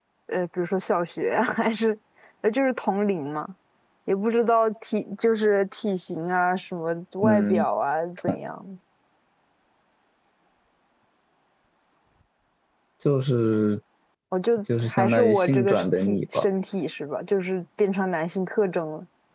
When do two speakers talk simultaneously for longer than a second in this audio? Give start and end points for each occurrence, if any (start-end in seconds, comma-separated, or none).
14.8-16.4